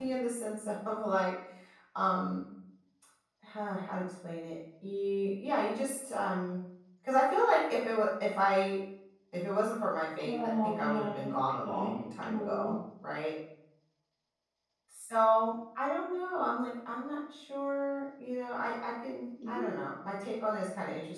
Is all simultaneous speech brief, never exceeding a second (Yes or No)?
No